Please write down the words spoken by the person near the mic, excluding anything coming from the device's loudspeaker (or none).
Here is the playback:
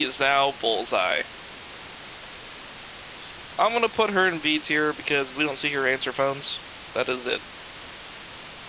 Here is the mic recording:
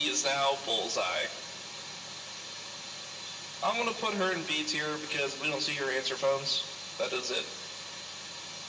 none